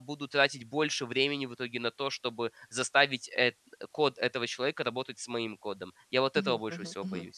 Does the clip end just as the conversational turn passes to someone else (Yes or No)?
Yes